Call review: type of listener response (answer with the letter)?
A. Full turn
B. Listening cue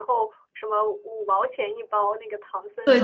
A